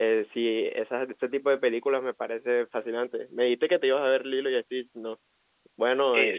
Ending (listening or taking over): taking over